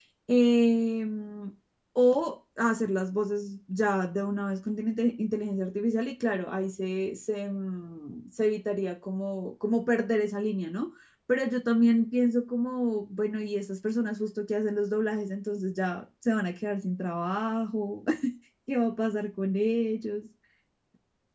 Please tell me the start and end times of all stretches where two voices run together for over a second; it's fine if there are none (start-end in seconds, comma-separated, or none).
none